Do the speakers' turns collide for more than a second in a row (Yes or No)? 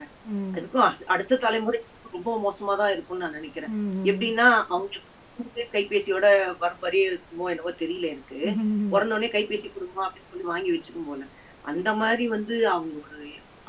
No